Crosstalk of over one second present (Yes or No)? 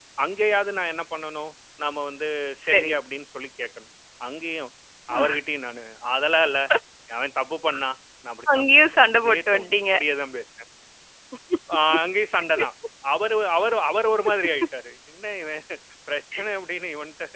Yes